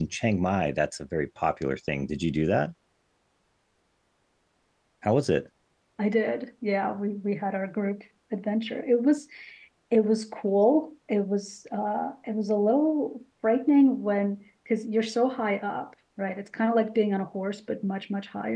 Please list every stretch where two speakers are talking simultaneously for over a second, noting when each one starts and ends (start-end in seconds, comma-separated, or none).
none